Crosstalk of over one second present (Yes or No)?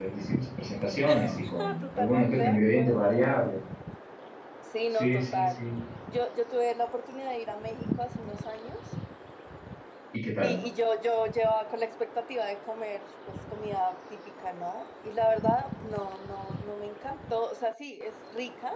Yes